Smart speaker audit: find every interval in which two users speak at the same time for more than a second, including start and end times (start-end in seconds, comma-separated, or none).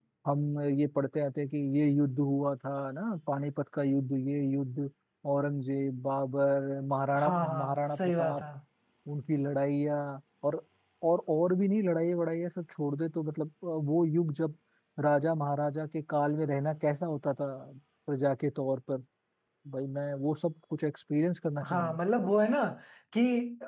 7.2-8.4